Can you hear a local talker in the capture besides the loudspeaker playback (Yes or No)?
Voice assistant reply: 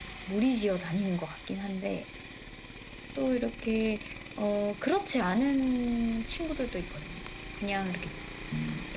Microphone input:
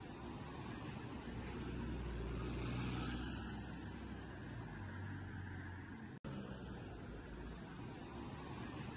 No